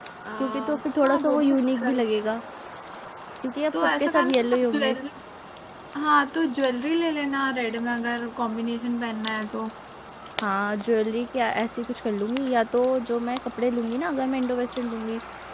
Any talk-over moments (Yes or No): Yes